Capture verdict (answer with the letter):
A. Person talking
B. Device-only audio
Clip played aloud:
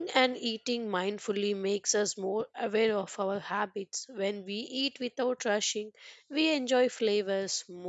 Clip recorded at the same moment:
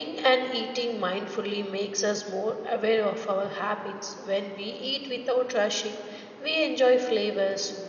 B